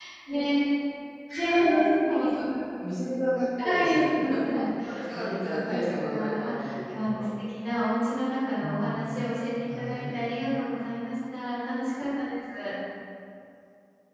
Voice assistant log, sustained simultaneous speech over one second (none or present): present